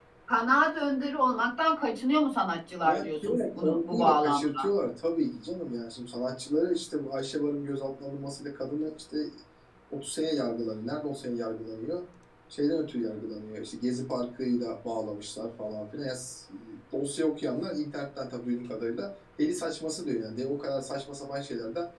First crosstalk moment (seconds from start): 2.8 s

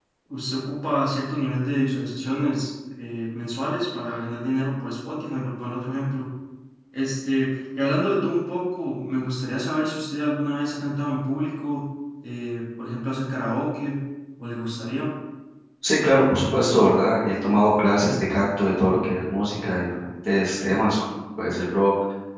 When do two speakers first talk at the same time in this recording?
none

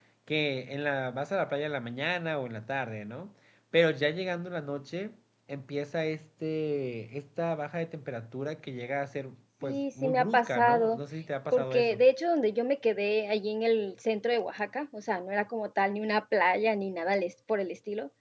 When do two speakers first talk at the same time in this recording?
9.6 s

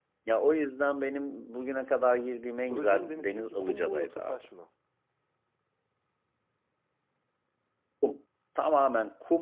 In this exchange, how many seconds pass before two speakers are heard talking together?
2.7 s

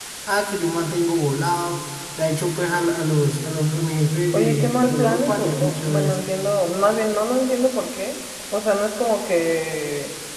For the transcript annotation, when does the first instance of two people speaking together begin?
4.3 s

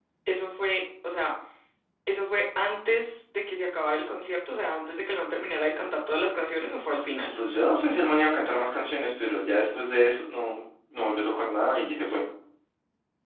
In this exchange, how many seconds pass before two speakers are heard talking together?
none

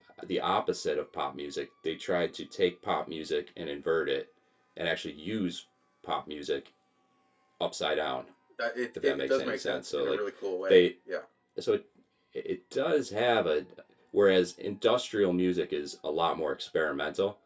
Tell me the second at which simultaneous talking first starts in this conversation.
8.9 s

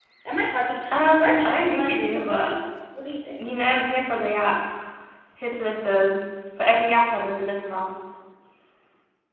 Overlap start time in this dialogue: 1.2 s

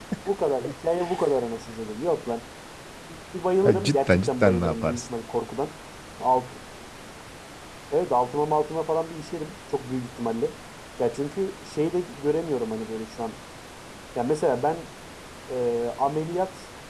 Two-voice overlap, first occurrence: 3.6 s

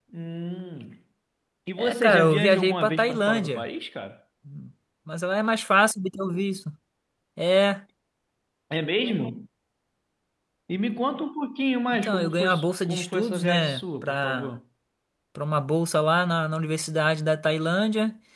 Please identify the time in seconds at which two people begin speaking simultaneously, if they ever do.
1.8 s

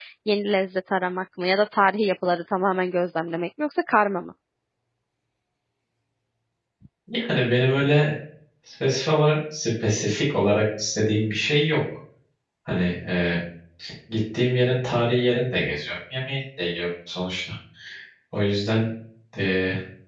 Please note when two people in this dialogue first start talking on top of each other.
none

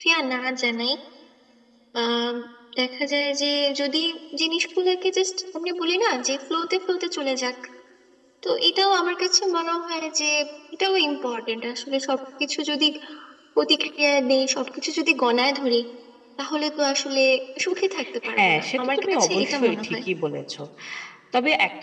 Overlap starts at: 18.3 s

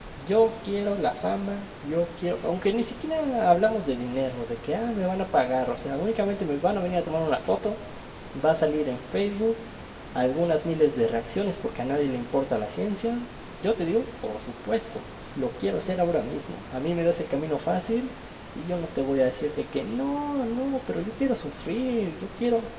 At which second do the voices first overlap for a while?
none

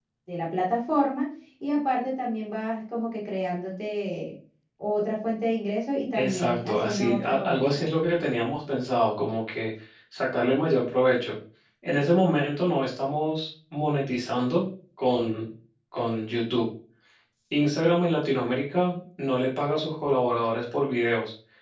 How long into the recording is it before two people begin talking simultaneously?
6.1 s

